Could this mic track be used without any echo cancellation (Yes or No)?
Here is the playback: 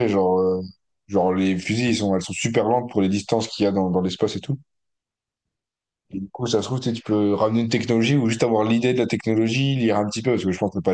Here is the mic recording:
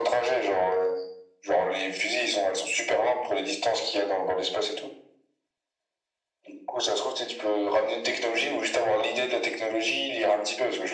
No